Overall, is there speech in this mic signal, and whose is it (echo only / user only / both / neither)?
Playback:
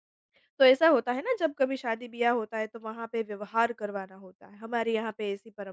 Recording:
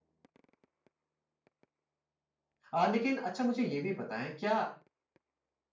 user only